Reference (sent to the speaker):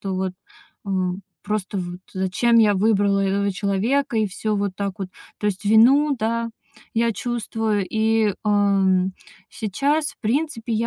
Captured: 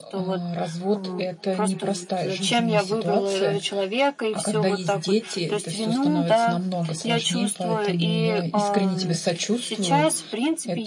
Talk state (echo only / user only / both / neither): both